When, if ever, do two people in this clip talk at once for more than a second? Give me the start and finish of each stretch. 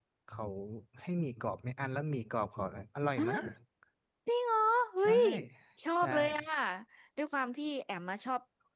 none

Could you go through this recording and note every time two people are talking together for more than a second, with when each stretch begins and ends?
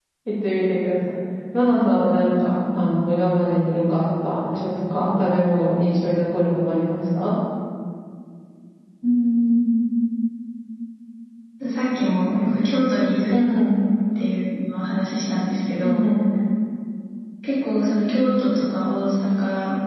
none

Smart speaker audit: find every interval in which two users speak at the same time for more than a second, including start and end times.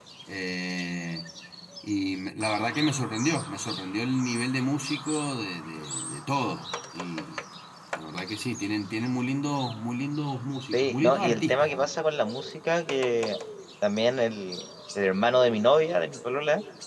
10.7-11.9

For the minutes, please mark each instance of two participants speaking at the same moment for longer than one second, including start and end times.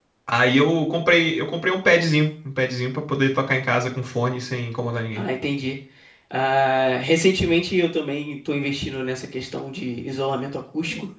none

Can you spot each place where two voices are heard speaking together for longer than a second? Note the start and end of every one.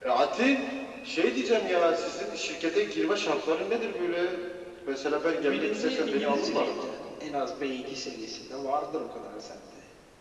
5.4-6.8

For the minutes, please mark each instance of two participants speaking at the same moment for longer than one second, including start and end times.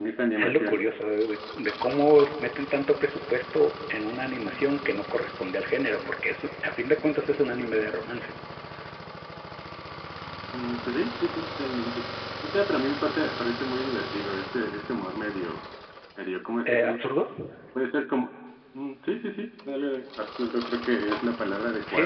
none

